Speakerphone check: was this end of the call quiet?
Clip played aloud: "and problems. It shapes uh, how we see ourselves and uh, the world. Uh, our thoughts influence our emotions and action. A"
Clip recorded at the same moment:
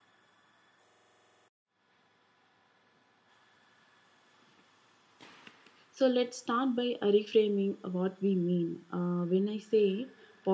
No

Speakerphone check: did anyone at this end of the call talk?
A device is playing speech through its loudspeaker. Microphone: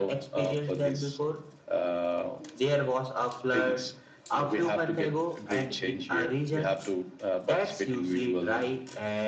No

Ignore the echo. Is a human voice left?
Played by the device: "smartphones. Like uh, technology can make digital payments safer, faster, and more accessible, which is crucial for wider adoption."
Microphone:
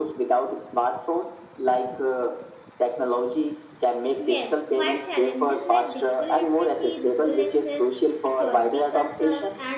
Yes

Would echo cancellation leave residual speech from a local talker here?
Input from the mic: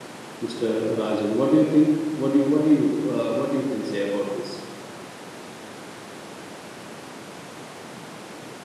Yes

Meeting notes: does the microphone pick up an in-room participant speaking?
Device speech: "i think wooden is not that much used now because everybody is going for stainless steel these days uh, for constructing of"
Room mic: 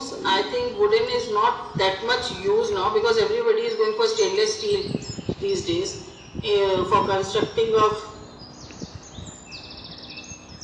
No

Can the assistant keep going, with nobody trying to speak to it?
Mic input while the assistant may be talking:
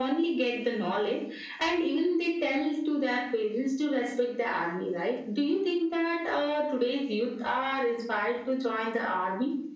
Yes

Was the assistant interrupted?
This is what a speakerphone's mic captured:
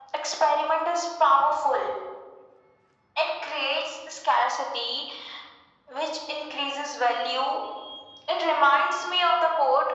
No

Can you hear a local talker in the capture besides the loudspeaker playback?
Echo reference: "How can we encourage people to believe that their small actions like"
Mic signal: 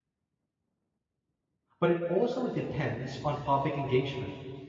Yes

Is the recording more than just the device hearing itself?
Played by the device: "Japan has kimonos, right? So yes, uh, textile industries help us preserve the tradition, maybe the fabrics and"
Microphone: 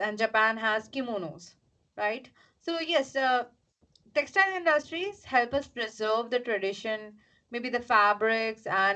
No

